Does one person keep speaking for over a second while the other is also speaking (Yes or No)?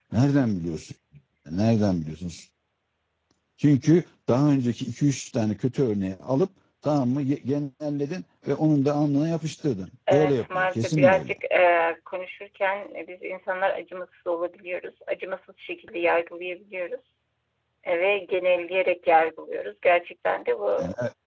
Yes